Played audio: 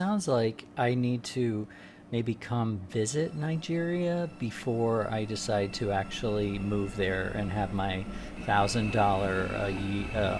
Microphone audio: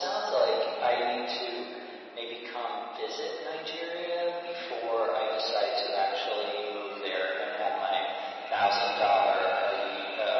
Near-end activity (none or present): none